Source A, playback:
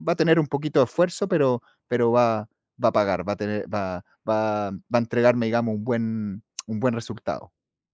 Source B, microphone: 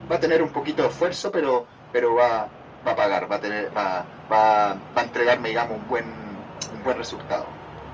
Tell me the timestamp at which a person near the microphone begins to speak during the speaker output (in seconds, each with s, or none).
none